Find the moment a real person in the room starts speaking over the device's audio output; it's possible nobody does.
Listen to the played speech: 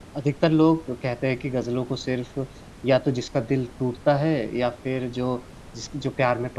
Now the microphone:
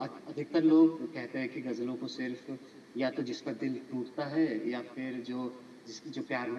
none

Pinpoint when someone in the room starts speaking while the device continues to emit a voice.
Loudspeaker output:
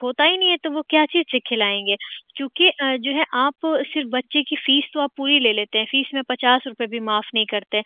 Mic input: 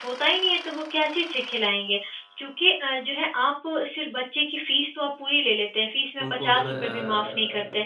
6 s

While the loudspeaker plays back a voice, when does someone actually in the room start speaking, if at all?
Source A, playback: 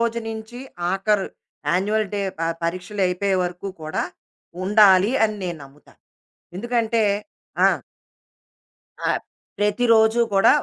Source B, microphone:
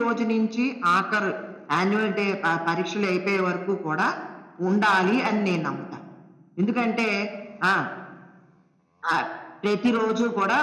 none

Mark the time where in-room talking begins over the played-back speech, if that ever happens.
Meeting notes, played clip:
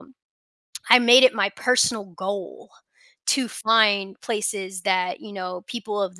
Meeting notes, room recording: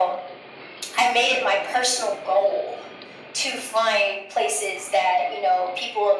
none

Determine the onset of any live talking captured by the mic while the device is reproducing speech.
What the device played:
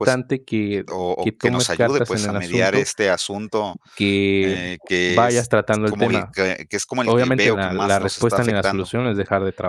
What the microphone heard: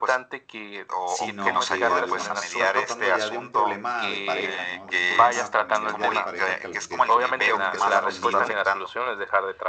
1 s

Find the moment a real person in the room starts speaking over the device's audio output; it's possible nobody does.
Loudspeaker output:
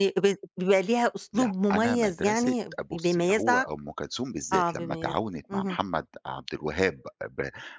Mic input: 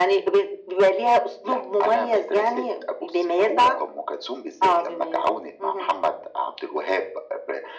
none

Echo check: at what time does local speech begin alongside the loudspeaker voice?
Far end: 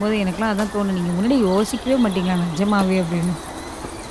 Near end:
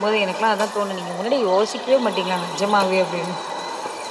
none

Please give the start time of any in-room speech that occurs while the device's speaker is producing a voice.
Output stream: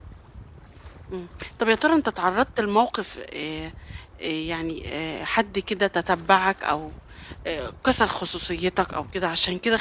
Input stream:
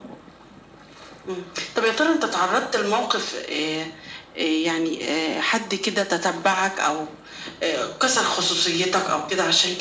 none

